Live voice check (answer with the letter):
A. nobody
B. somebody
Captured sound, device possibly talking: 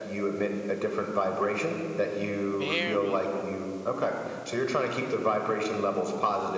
B